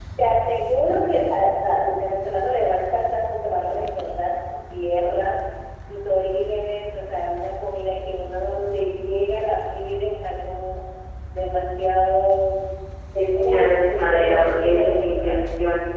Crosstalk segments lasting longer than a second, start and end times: 13.3-15.4

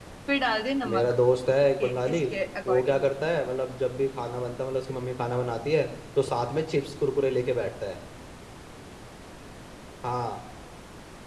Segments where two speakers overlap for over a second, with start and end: none

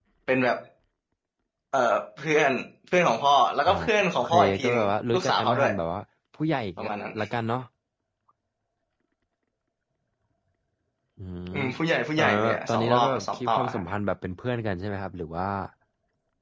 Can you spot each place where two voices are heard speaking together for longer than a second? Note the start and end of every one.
4.1-5.7, 12.2-13.8

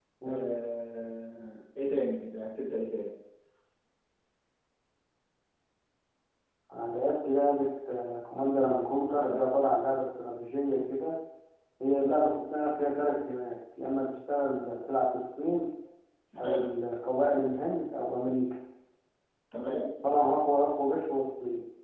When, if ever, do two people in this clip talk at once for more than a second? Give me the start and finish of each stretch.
none

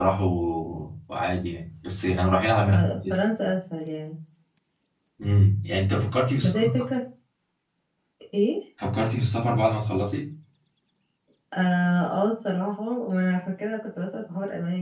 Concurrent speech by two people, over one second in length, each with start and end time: none

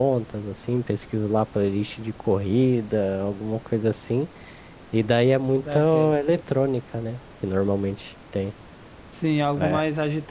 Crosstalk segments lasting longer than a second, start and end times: none

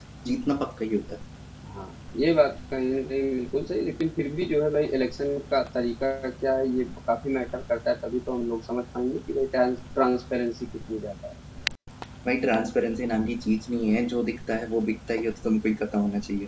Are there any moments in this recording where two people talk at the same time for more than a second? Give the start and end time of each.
none

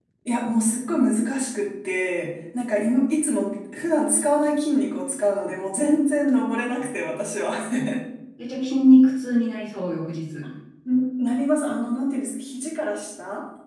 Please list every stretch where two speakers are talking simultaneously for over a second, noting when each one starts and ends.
none

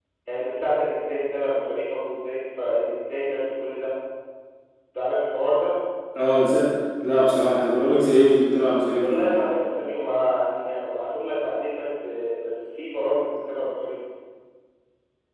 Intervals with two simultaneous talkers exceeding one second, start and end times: none

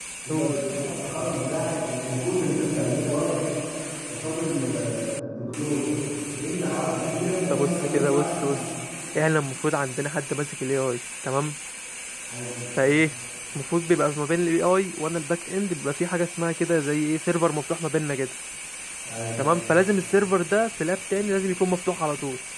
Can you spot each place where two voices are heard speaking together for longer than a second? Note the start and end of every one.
7.2-8.6

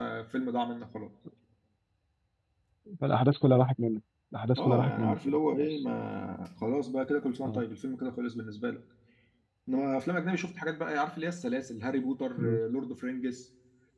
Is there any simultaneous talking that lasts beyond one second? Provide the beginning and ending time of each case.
4.6-5.8

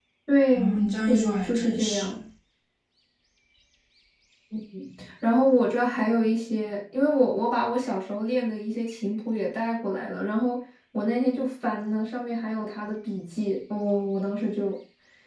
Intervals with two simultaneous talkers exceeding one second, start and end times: 0.6-2.2

